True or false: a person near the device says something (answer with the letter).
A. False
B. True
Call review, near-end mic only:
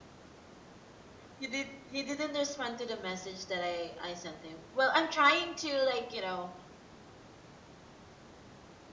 B